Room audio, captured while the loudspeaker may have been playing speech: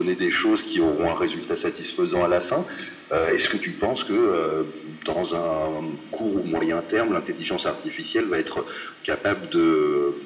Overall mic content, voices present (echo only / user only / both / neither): echo only